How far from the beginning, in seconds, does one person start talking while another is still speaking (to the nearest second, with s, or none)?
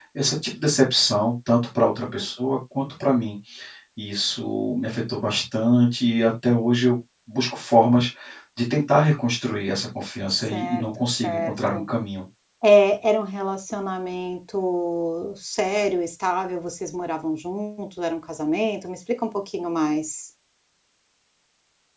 10 s